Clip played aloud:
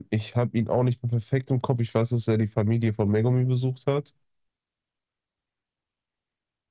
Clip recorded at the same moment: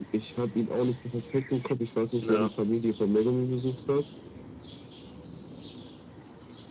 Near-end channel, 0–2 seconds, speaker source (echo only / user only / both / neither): echo only